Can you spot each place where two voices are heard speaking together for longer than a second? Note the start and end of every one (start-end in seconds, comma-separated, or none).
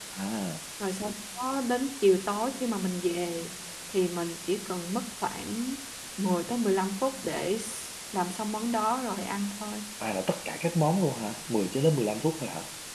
none